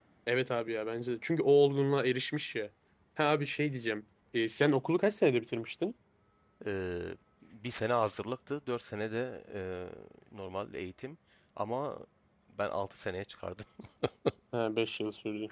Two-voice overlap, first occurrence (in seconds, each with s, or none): none